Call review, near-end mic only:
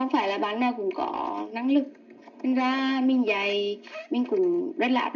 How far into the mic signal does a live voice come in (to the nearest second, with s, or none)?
none